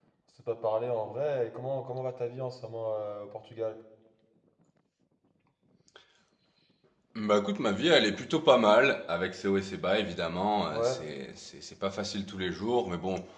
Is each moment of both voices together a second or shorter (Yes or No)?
Yes